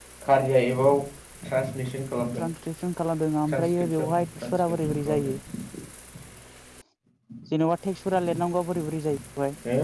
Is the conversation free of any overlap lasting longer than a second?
No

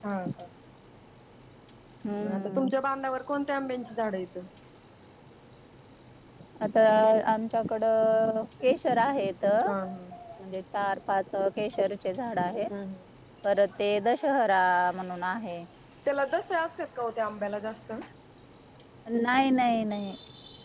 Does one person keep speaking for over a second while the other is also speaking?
No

